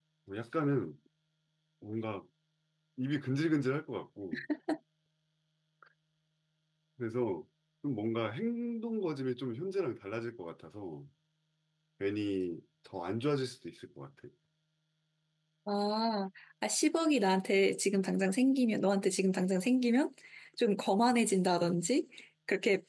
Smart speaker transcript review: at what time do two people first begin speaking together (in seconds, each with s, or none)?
none